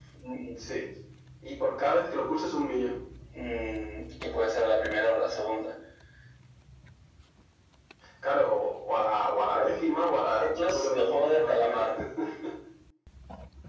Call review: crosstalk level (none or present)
present